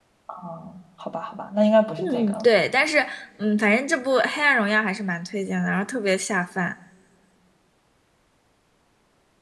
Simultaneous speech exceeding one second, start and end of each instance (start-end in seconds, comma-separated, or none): none